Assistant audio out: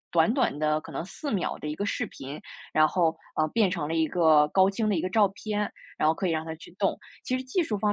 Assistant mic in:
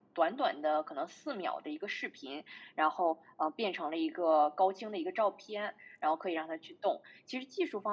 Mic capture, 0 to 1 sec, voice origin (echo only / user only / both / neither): echo only